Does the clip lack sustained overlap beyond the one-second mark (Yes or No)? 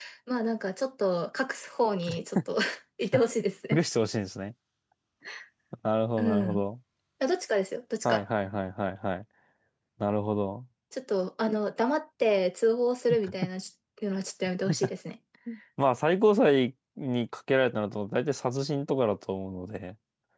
Yes